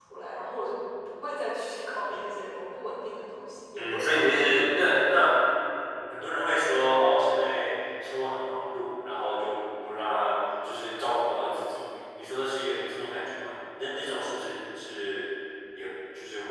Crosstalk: present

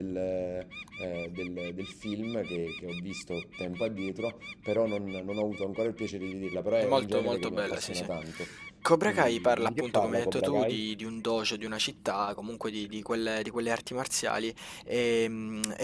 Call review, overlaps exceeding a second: present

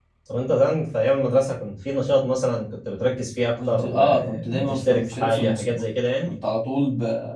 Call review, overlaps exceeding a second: present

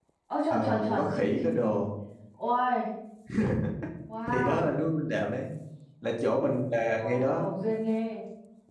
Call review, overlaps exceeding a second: present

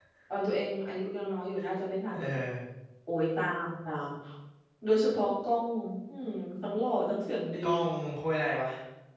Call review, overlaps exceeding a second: none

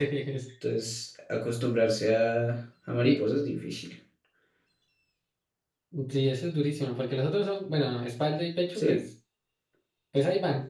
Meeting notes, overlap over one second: none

